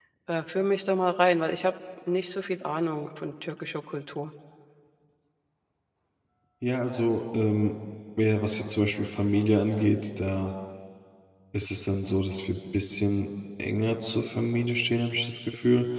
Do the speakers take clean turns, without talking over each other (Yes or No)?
Yes